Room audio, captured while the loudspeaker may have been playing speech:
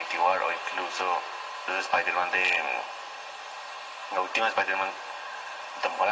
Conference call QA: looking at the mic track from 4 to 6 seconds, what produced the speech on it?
echo only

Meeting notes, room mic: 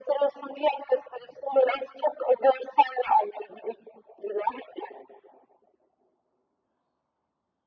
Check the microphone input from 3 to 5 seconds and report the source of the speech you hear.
echo only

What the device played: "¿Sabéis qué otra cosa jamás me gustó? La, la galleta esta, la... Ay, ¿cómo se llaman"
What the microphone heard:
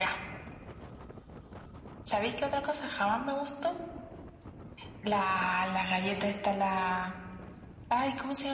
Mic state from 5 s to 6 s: echo only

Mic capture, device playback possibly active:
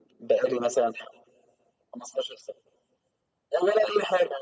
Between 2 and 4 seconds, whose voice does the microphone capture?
echo only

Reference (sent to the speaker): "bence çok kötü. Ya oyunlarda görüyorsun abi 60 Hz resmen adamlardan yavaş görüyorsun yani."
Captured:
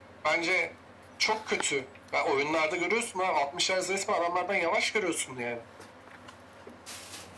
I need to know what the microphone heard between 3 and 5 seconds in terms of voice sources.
echo only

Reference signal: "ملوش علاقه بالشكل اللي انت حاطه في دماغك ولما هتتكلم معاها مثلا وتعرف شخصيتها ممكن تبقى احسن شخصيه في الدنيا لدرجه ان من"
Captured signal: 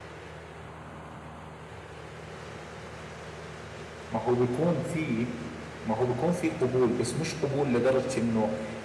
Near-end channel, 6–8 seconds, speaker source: user only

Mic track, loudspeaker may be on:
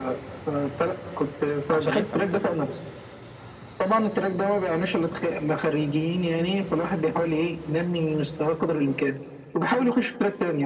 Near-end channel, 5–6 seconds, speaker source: echo only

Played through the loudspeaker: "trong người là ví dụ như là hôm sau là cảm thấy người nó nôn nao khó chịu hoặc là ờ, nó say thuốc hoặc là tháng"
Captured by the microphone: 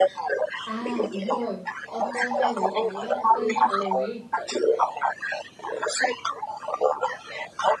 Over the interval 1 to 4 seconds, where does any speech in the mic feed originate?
both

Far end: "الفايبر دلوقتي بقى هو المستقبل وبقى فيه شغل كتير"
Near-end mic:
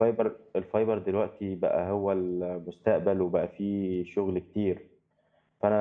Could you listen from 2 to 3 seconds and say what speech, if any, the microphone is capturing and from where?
echo only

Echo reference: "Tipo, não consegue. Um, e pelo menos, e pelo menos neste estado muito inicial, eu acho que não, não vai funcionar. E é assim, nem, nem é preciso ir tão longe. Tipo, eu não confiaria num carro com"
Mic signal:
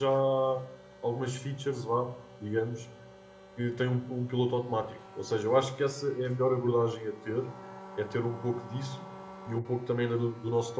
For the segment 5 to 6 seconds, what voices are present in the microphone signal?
user only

